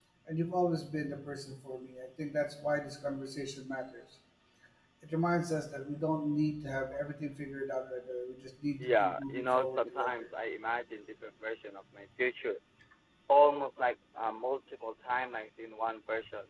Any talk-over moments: Yes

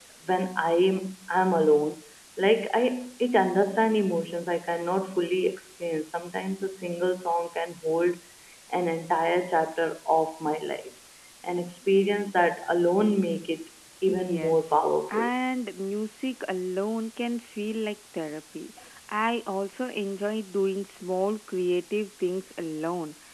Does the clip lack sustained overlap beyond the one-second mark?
No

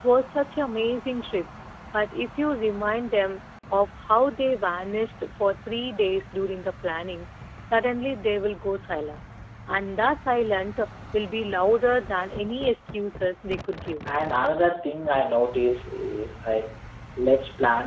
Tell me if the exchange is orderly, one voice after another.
Yes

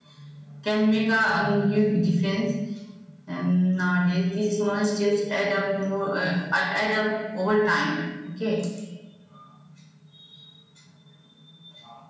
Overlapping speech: No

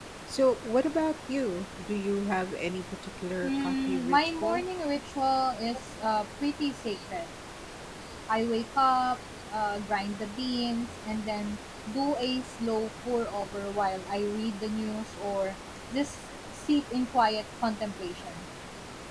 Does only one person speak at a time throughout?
No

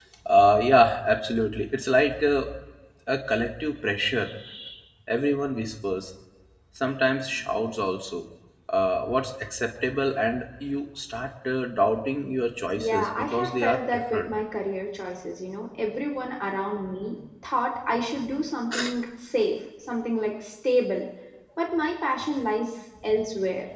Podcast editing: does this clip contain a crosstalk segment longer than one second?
Yes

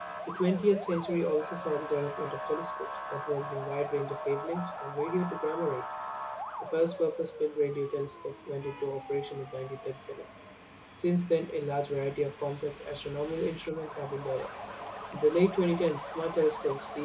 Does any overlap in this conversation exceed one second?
No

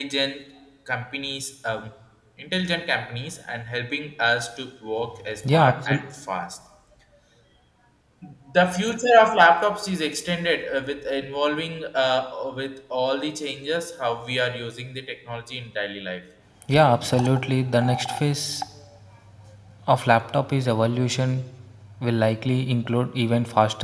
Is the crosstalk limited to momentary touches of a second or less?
Yes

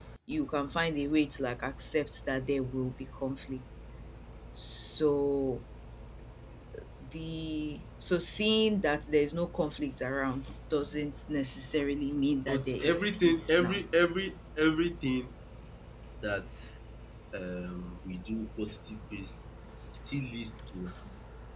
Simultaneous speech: Yes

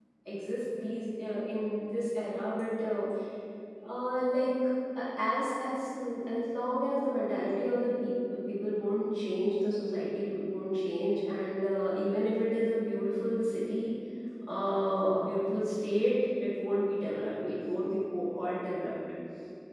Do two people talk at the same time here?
No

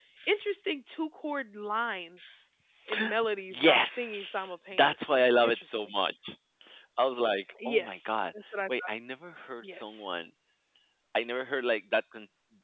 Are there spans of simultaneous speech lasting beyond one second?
Yes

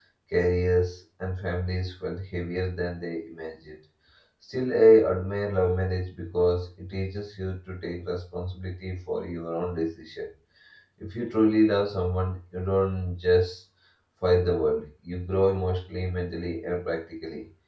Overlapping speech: No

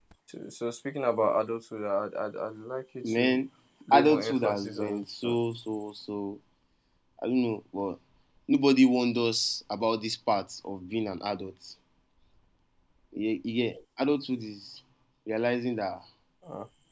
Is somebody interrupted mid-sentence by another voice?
Yes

